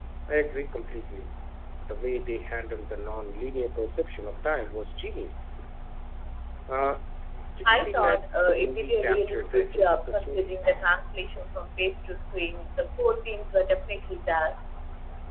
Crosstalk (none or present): present